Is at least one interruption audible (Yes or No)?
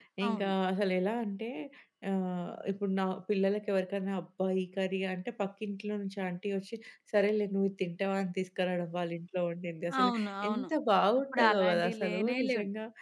Yes